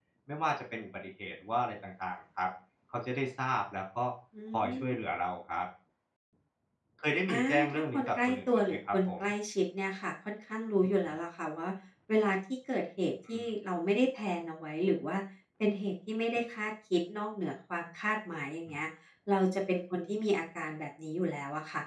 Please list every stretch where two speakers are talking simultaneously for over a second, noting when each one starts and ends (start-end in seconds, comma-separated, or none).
7.3-9.1